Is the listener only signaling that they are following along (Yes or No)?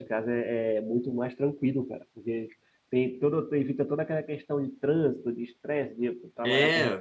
No